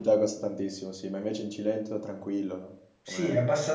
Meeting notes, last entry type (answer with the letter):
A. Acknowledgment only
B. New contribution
B